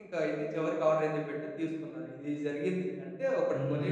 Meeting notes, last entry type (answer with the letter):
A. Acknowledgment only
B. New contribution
B